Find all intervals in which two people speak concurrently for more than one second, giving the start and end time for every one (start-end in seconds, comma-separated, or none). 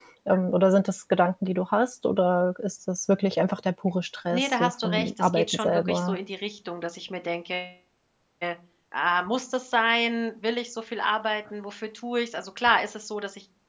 4.3-6.2